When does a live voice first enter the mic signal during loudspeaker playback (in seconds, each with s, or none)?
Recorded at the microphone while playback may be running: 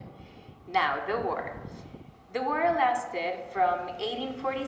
none